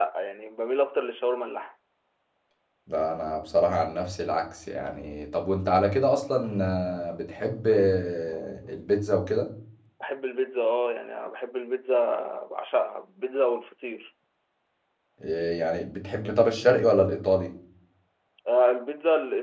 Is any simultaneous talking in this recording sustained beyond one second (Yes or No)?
No